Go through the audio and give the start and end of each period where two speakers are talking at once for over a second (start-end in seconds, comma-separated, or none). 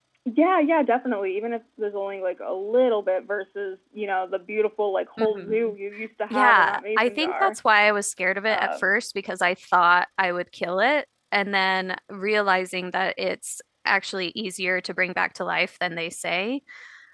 6.3-7.6